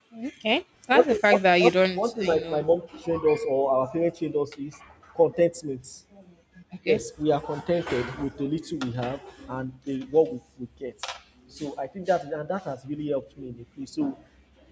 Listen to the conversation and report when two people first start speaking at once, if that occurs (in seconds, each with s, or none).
0.9 s